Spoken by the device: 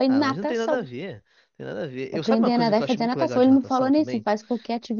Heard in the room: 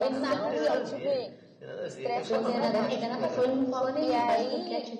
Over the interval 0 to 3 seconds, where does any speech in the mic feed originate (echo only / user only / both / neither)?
both